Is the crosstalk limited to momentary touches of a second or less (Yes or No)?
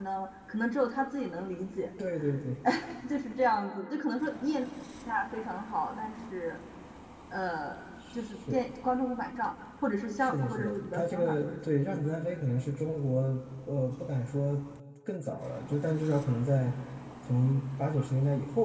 No